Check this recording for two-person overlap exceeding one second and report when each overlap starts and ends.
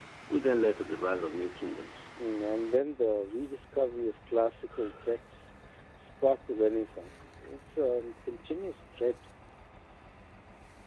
none

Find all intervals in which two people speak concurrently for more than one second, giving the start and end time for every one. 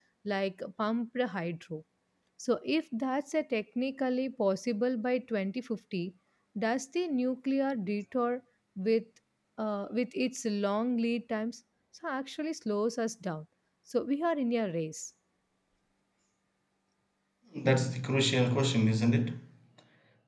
none

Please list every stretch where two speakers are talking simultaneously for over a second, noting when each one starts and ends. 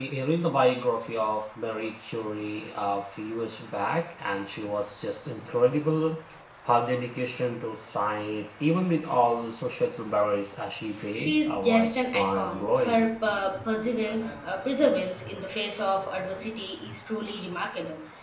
11.1-13.0

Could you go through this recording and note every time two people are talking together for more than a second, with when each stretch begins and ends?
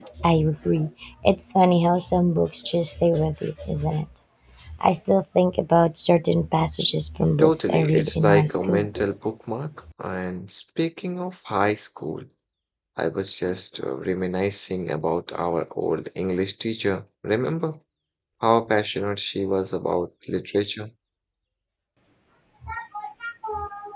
7.4-8.9

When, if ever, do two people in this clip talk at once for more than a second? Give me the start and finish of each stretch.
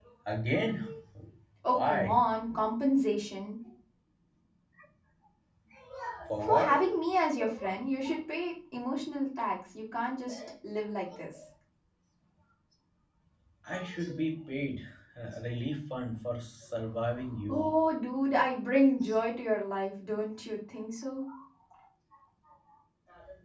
none

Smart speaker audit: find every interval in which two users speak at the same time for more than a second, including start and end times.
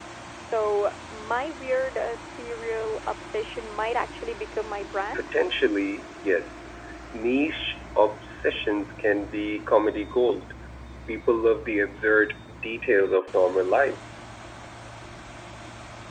none

